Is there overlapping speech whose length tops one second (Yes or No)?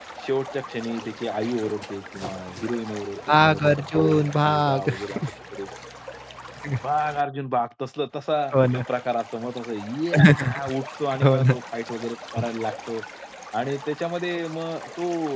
Yes